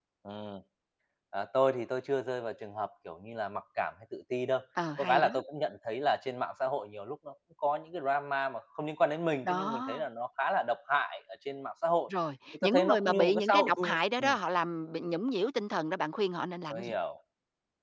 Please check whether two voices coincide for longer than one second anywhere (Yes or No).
Yes